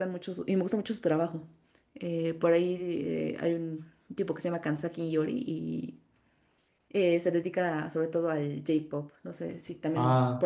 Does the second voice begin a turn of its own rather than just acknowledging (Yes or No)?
Yes